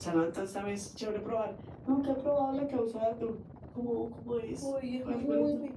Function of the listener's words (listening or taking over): taking over